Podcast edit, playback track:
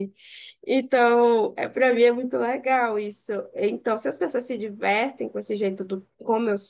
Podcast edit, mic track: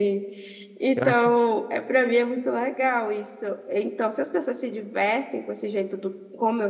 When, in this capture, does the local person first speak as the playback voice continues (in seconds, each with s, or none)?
0.9 s